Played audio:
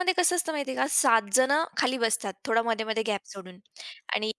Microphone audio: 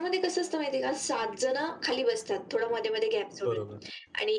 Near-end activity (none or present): present